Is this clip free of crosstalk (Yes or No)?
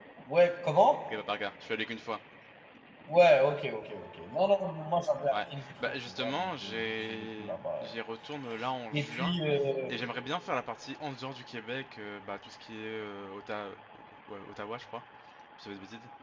No